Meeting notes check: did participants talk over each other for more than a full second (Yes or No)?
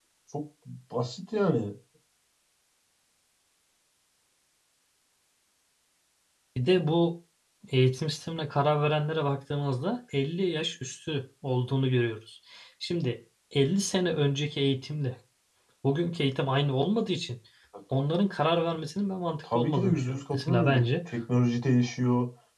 Yes